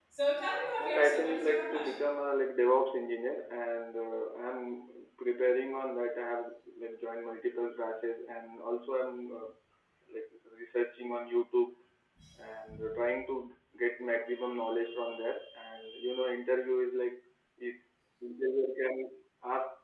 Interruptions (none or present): present